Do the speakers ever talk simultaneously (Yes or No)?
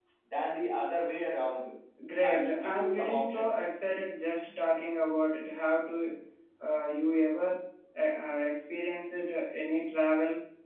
Yes